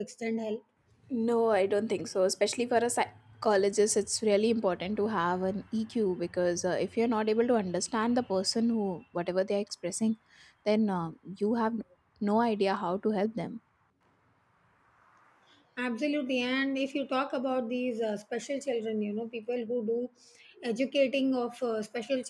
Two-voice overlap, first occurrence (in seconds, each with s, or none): none